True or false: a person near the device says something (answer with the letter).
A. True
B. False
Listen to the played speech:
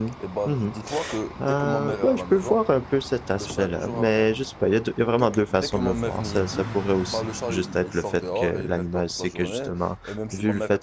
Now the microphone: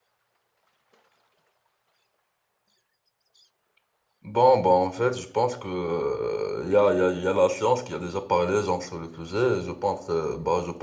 A